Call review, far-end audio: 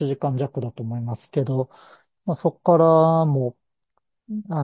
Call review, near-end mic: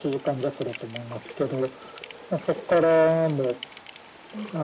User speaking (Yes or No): No